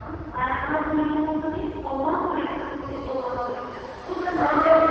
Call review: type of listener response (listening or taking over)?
taking over